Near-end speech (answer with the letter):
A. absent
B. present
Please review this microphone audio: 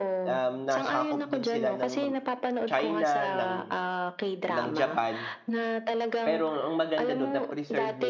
B